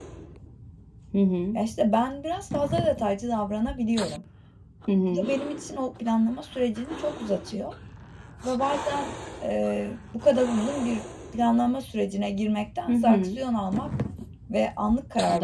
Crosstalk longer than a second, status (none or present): none